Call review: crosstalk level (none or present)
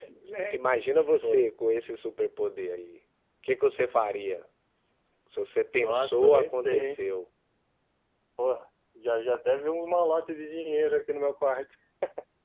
present